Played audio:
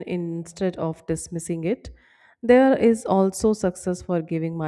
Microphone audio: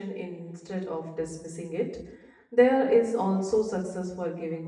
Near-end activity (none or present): none